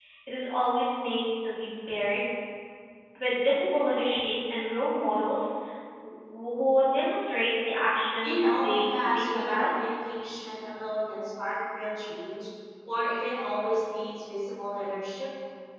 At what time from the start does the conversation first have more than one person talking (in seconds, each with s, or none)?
8.2 s